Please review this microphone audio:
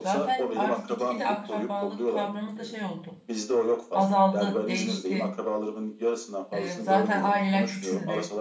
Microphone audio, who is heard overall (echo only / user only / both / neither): both